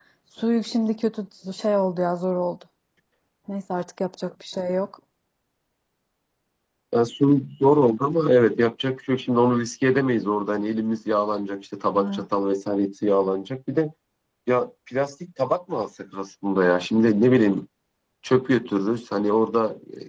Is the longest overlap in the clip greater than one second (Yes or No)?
No